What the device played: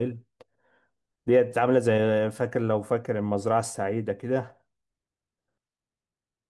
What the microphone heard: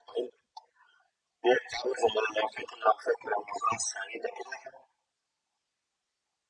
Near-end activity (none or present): none